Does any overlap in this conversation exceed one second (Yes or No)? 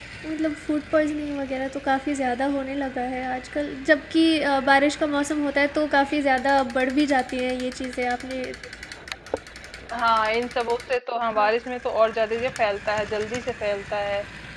No